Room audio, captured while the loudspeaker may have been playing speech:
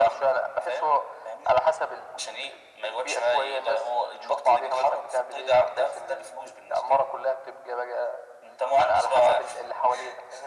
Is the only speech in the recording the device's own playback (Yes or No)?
Yes